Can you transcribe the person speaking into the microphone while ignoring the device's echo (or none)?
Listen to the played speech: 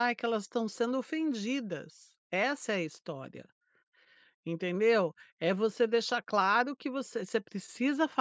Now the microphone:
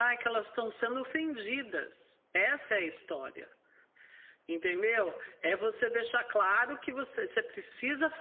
none